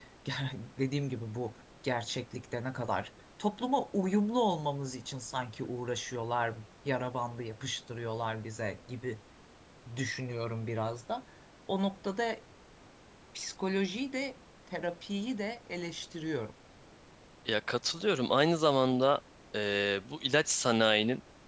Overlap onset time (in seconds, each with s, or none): none